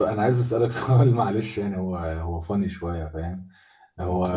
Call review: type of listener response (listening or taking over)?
listening